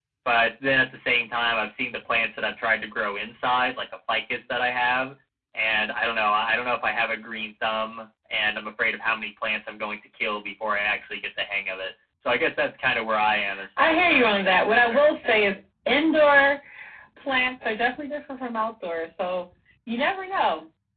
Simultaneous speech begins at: 13.8 s

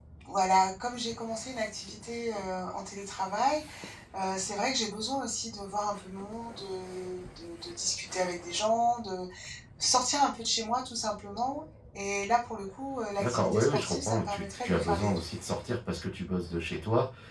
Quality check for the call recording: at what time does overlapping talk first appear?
13.2 s

